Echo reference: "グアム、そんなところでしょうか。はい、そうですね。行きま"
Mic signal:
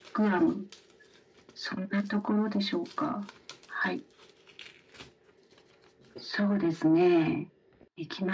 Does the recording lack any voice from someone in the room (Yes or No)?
Yes